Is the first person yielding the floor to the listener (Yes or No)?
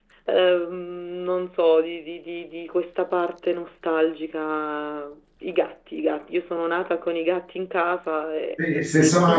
Yes